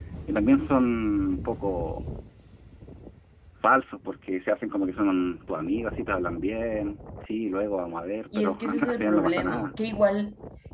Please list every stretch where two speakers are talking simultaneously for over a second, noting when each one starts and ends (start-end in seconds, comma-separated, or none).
8.4-9.7